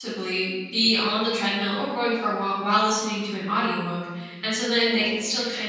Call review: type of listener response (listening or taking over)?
listening